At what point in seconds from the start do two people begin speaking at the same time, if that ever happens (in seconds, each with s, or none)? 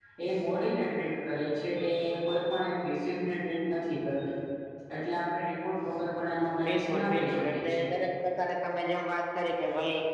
6.6 s